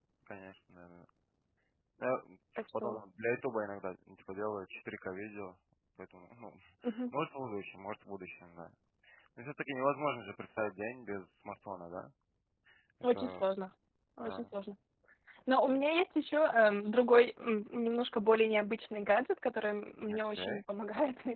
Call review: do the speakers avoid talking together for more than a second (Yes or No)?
Yes